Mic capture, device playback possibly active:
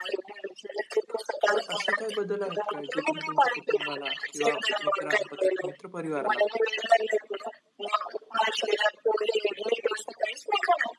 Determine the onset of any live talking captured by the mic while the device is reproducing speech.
1 s

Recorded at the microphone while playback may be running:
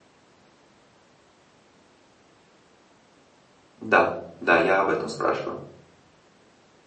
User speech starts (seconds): 4 s

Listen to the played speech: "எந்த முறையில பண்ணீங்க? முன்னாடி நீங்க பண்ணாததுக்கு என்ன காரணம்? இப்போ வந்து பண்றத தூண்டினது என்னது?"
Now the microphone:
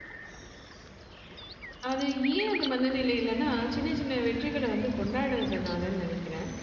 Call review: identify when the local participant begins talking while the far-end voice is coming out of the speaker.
2 s

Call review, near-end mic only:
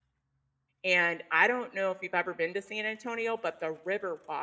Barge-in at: 1 s

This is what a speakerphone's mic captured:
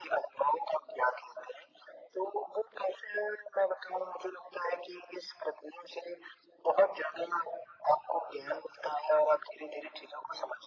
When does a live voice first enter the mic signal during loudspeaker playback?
none

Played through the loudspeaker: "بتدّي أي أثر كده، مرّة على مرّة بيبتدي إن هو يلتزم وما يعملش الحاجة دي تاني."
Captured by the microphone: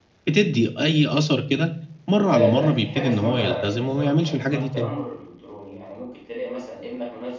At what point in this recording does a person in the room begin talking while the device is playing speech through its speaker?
2 s

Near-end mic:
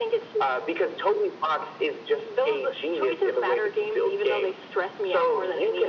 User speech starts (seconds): none

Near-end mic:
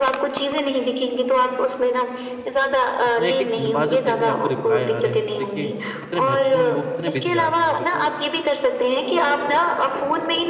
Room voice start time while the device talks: 3 s

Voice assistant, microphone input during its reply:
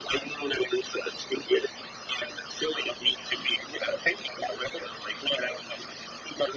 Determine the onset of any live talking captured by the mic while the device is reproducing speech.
none

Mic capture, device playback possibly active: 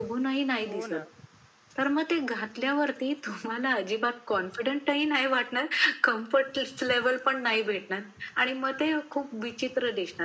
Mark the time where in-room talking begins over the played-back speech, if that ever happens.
1 s

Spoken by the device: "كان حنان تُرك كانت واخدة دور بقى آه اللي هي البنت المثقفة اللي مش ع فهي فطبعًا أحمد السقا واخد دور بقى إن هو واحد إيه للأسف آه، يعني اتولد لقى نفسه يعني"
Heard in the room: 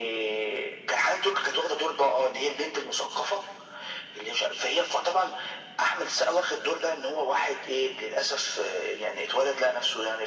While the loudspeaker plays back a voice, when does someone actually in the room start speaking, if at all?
none

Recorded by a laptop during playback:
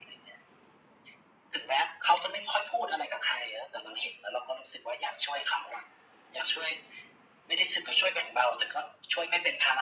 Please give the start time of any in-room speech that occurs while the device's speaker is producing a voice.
none

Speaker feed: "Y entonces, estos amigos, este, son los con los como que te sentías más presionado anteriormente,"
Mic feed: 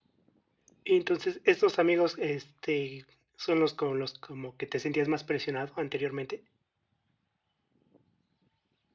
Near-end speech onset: none

